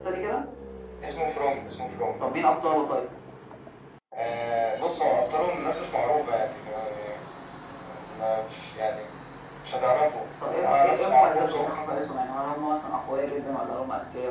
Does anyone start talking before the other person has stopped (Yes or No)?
Yes